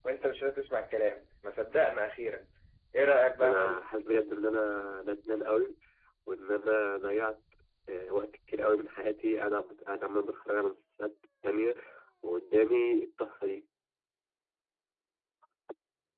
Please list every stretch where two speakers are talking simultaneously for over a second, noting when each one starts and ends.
none

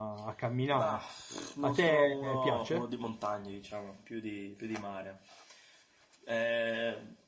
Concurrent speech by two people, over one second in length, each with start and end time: 1.6-2.8

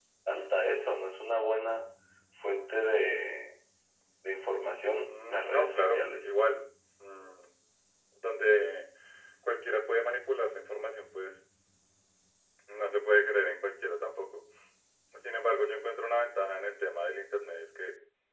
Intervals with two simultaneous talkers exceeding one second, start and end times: 5.1-6.3

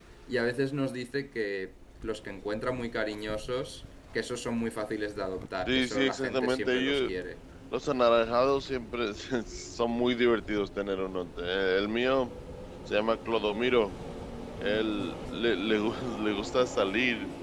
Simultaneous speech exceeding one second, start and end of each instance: 5.7-7.1

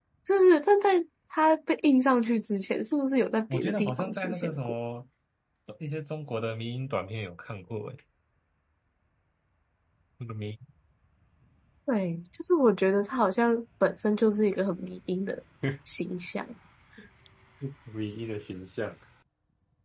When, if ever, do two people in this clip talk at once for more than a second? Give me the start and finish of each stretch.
3.5-4.7

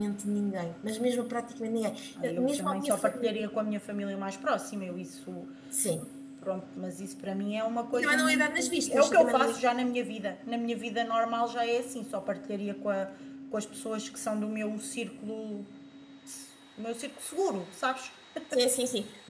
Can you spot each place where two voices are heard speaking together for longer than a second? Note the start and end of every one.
2.2-3.4, 7.9-9.6

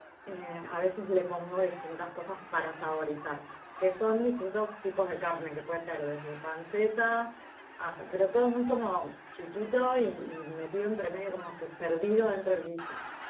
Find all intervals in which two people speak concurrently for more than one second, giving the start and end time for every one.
none

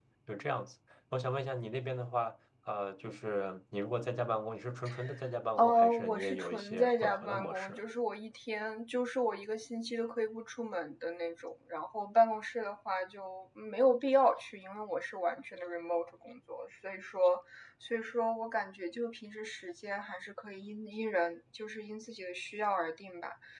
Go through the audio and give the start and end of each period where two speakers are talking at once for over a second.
5.6-7.8

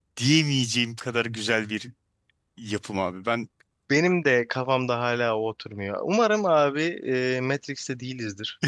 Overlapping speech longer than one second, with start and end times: none

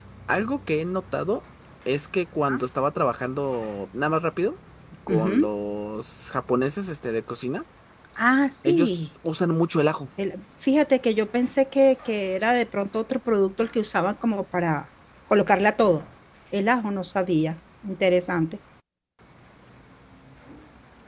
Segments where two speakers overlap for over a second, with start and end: none

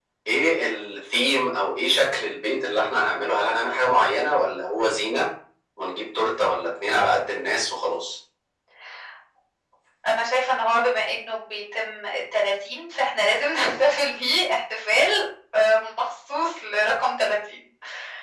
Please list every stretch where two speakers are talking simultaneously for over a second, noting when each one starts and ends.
none

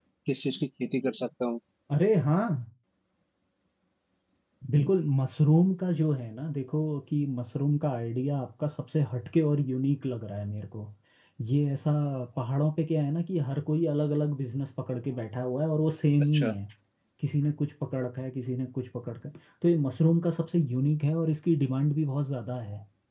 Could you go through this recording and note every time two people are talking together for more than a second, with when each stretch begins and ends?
none

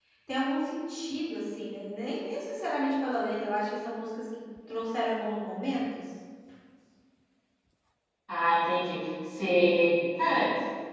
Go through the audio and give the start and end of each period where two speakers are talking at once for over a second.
none

